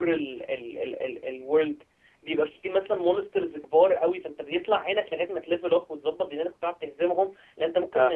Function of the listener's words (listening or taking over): listening